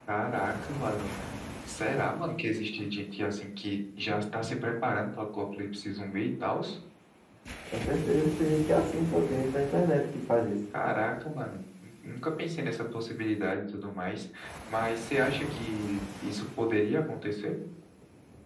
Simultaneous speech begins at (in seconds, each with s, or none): none